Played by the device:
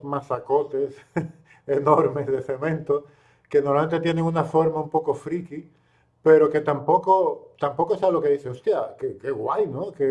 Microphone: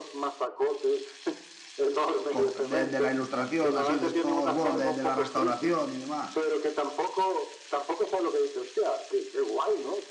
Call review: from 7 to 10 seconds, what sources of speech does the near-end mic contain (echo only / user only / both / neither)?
echo only